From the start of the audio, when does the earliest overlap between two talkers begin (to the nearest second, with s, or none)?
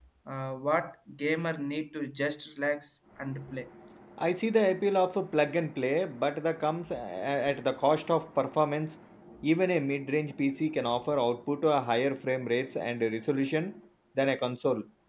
none